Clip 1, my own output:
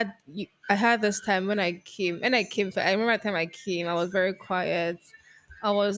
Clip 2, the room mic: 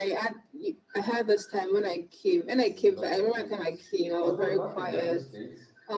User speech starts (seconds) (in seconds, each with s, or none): 2.7 s